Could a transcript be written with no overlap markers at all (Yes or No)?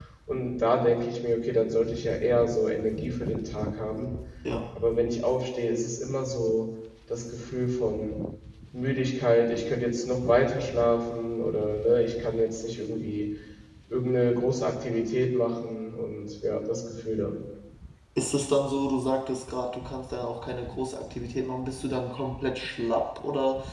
Yes